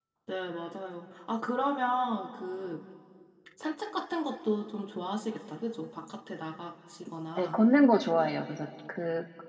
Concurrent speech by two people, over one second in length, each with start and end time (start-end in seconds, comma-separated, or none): none